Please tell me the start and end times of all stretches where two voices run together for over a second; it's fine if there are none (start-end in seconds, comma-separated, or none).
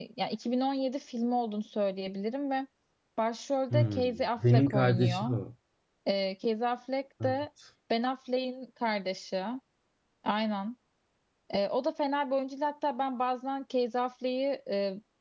3.7-5.2